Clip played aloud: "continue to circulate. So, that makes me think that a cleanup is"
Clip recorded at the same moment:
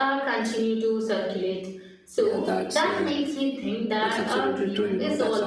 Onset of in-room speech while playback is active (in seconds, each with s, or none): 2.2 s